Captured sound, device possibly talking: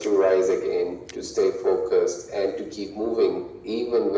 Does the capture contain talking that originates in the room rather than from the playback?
No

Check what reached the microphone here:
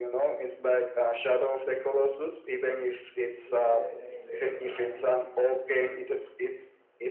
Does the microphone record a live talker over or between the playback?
Yes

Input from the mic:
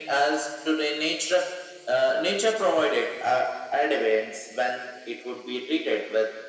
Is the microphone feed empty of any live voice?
Yes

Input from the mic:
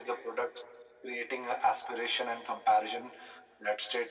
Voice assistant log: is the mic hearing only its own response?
Yes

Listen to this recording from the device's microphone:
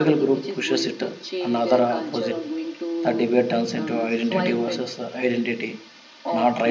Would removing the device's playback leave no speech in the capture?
No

